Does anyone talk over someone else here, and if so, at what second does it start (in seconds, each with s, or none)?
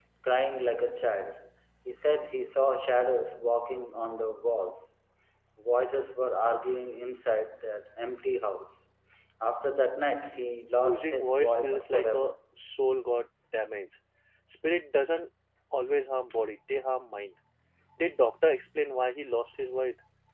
10.8 s